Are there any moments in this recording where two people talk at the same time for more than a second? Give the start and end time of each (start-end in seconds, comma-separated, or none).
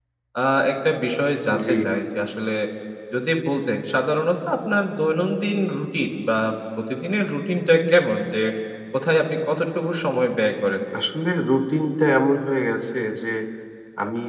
none